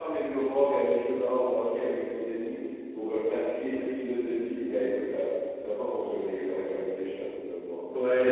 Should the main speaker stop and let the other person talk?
Yes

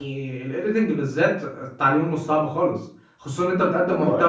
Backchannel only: Yes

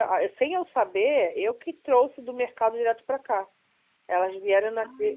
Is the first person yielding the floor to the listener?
No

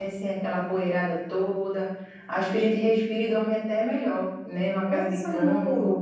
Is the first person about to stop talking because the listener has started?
Yes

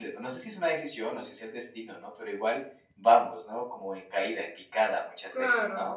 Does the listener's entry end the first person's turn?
Yes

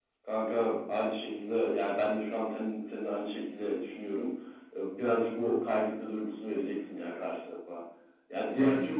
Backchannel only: Yes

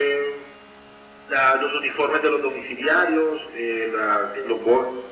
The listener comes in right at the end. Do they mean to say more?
No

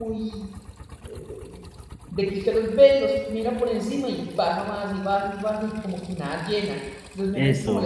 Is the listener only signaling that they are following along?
Yes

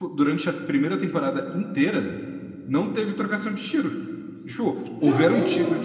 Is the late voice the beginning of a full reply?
No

